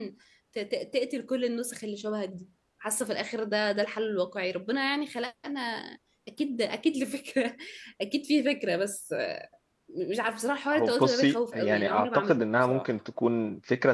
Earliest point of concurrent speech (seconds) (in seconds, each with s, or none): 10.7 s